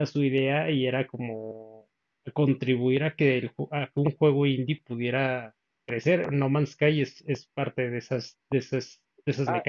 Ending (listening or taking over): taking over